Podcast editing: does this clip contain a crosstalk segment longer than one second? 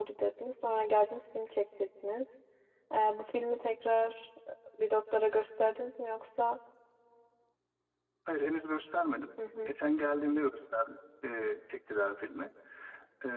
No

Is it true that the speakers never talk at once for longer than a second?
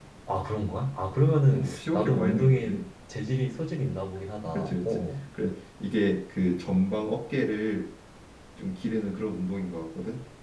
No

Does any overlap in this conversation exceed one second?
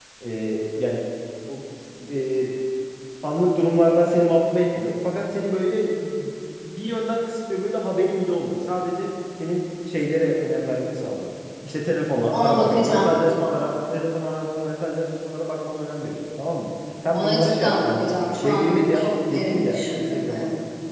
Yes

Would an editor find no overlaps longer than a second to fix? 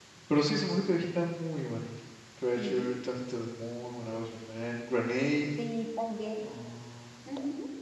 Yes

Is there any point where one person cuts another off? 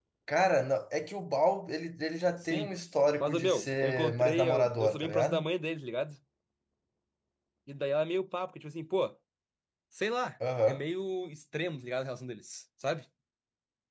Yes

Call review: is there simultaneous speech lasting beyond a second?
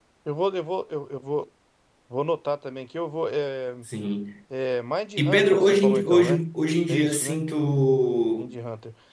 Yes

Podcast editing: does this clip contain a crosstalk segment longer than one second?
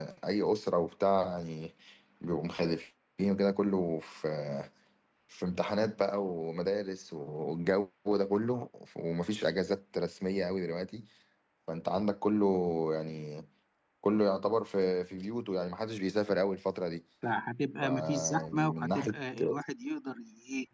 Yes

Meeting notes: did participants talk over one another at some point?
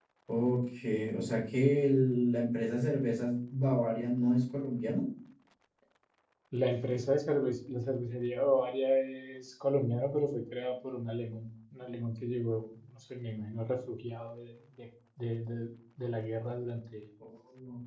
No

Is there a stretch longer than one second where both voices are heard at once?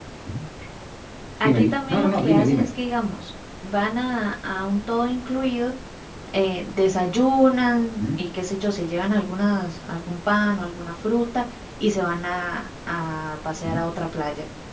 Yes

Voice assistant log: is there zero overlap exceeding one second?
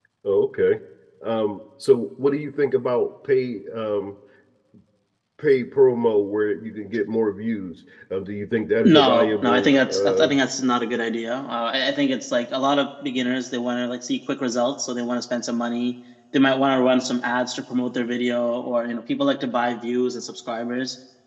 No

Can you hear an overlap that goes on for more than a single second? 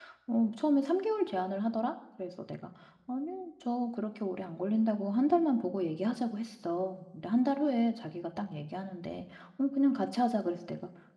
No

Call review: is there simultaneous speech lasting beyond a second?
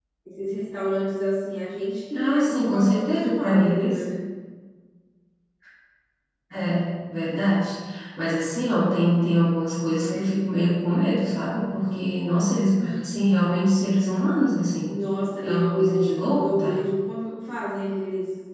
Yes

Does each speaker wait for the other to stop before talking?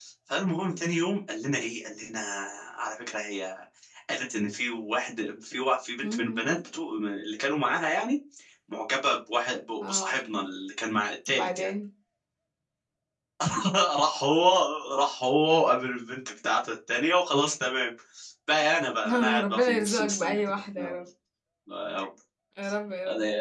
No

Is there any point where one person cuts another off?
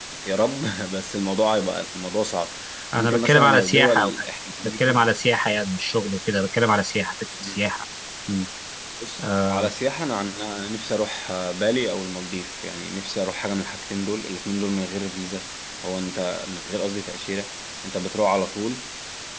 Yes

